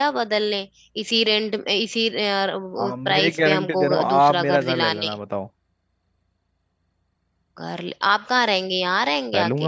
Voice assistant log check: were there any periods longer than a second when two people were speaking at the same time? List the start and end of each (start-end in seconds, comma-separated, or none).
2.8-5.1